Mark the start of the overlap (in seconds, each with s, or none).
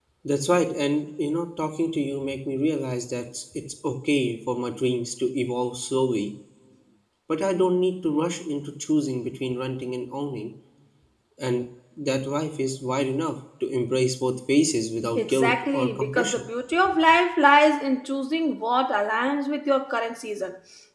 15.2 s